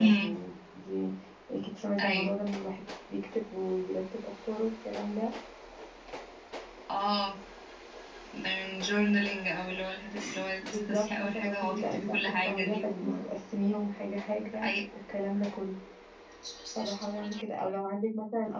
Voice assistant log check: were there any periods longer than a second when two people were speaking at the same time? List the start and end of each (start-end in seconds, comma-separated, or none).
10.9-13.1